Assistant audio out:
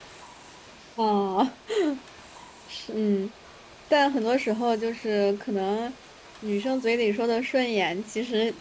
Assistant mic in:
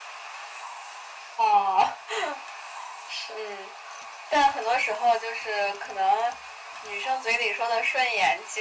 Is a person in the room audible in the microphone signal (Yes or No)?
No